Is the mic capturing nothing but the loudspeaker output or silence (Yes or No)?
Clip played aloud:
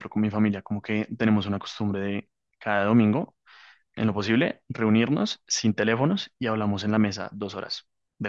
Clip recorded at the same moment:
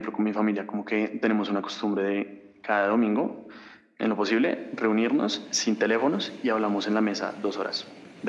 Yes